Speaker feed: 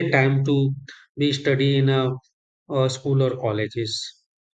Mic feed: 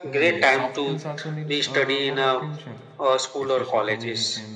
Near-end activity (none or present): present